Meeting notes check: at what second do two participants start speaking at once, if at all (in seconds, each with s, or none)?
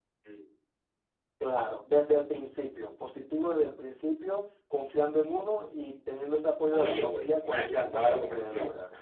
6.7 s